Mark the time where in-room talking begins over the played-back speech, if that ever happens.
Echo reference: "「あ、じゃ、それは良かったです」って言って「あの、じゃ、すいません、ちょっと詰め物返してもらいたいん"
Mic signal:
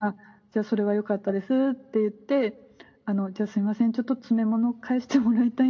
none

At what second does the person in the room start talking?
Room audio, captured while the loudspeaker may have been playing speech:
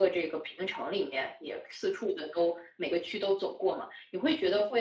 none

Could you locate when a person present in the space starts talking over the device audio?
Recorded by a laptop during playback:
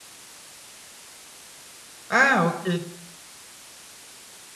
2.1 s

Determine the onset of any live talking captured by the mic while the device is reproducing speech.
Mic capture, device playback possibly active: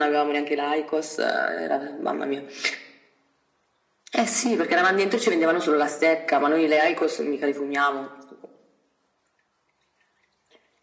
none

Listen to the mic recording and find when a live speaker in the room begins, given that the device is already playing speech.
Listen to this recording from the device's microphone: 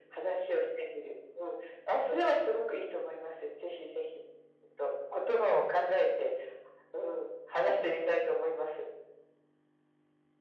none

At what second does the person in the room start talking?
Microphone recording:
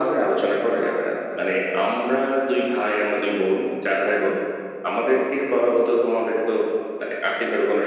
none

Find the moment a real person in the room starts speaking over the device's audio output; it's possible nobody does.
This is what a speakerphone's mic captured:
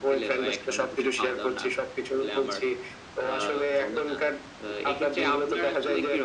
none

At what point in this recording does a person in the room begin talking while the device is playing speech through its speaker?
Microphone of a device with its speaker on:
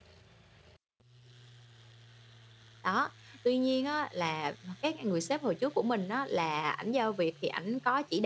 2.8 s

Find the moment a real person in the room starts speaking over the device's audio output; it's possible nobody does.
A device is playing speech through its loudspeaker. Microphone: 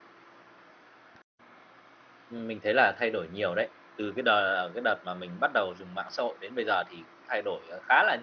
2.3 s

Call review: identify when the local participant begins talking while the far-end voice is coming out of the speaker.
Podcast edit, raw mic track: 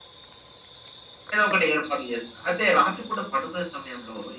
none

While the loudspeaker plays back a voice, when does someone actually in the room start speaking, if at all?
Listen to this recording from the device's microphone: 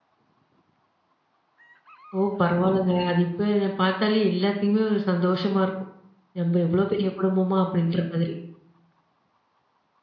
2.2 s

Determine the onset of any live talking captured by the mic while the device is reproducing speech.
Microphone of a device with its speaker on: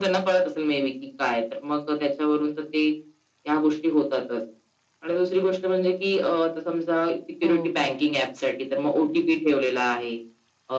7.4 s

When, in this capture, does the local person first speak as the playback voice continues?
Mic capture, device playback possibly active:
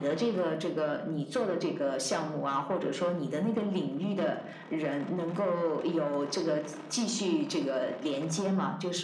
none

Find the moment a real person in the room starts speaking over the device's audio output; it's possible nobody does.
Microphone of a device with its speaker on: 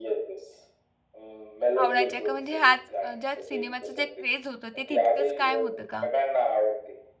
1.8 s

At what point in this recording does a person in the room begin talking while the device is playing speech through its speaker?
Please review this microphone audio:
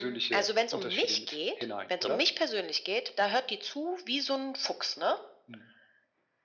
none

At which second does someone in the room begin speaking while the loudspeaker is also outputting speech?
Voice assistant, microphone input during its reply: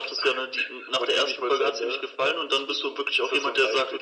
none

